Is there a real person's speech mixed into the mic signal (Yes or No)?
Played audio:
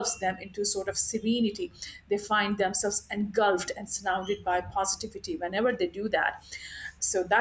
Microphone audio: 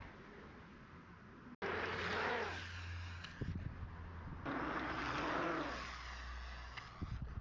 No